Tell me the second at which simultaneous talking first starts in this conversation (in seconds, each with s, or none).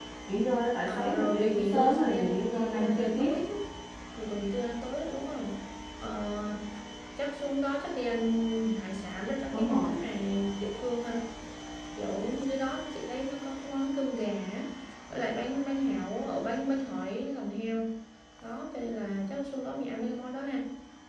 0.9 s